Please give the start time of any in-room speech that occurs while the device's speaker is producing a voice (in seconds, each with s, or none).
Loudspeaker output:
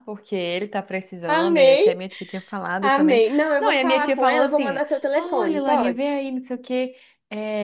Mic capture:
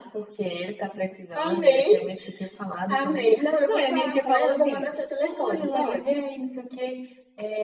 none